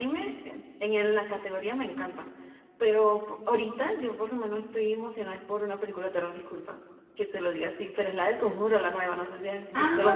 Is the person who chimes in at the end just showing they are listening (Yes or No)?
No